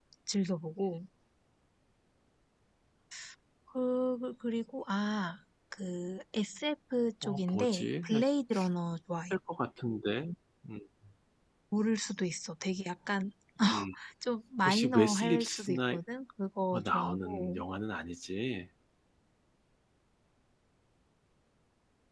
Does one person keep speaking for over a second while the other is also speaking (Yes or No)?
Yes